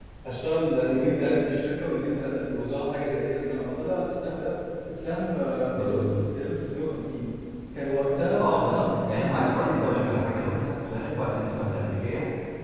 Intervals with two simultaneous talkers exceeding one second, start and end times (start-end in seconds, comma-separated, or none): 8.4-10.2